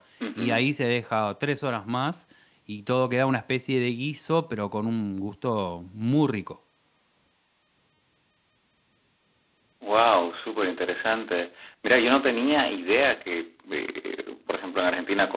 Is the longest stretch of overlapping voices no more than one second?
Yes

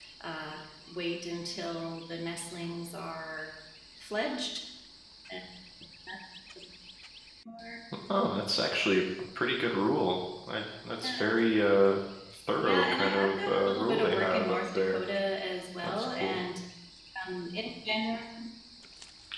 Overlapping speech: Yes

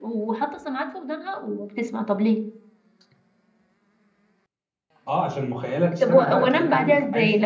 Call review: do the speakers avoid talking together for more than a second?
No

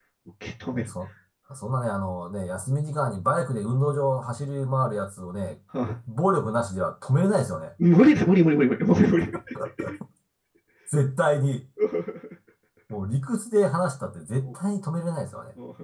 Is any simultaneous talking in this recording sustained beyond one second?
No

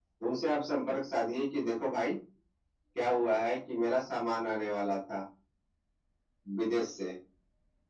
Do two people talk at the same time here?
No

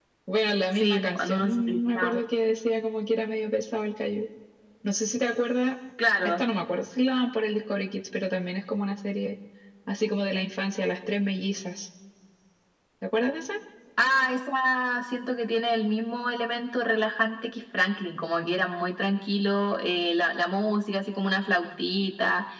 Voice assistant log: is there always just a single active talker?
No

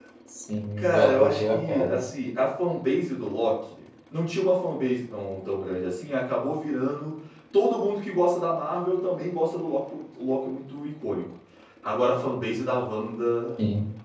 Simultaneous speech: Yes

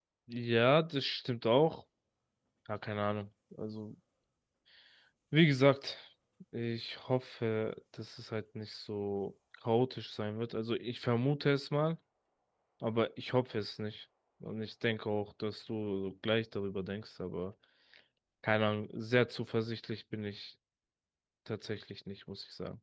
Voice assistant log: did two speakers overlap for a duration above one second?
No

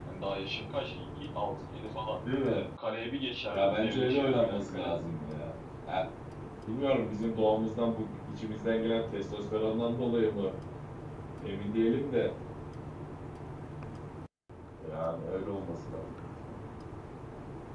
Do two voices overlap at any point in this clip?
Yes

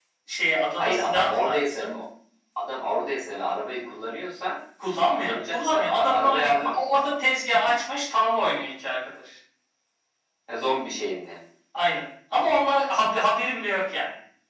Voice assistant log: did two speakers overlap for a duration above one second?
Yes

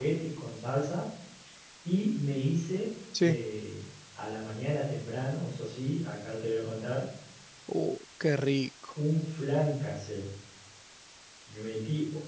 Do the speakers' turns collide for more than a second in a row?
No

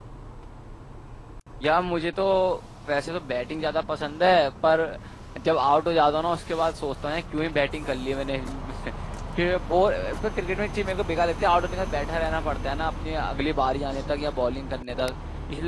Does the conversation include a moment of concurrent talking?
No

